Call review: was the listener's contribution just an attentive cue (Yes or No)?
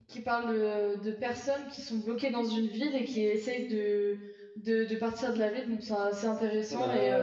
No